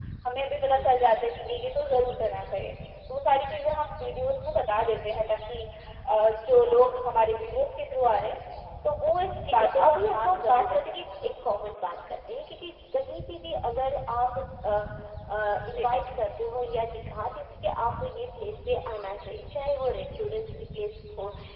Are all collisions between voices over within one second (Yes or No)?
No